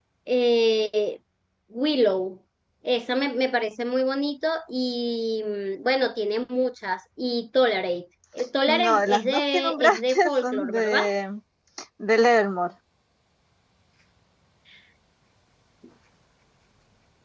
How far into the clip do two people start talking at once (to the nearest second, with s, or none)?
9 s